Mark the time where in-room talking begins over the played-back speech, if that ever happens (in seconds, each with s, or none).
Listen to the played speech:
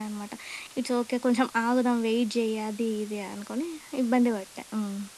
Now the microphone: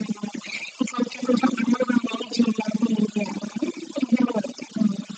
none